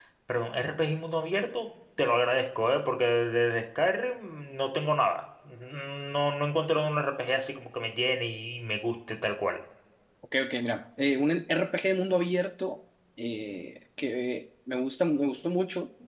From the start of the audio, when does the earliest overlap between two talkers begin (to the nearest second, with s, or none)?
none